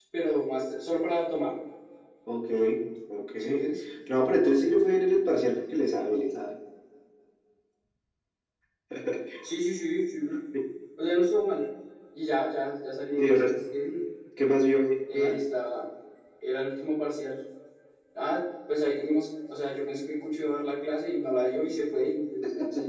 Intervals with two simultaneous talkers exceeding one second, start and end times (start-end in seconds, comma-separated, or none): none